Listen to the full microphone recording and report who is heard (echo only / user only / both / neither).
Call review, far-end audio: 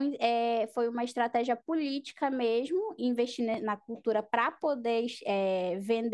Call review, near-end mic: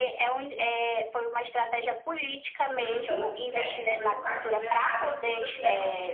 both